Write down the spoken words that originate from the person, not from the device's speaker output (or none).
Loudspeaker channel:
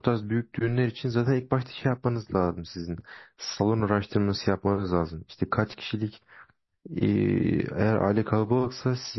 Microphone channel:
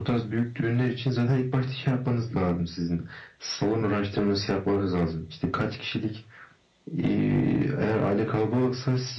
none